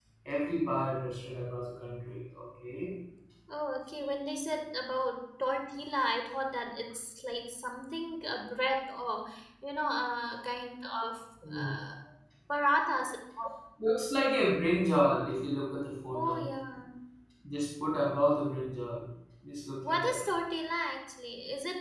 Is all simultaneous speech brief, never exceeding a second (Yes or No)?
Yes